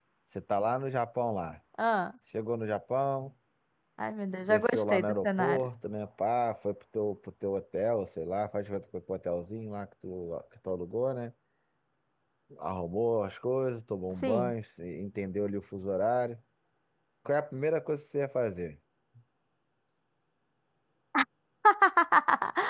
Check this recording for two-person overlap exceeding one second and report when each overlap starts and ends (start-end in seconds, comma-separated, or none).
4.4-5.7